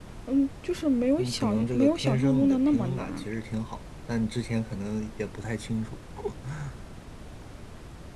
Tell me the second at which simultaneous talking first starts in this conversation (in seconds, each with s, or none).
1.2 s